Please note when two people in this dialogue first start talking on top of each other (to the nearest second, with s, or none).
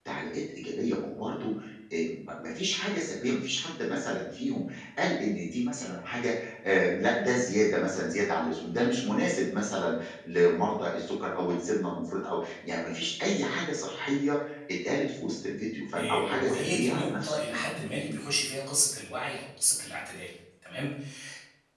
16 s